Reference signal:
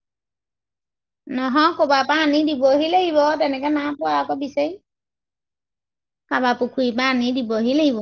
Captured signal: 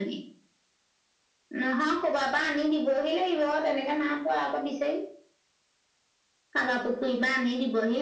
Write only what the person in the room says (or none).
none